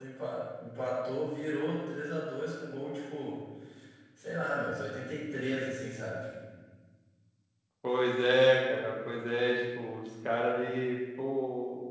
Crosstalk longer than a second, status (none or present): none